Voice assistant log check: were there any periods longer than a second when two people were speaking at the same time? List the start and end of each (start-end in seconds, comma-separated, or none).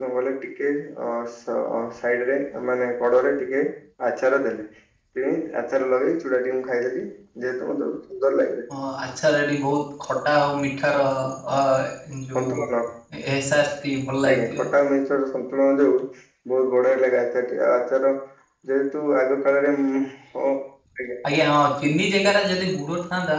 none